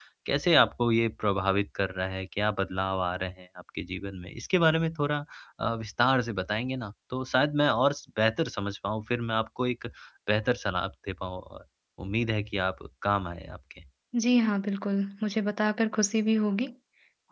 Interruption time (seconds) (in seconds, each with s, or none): none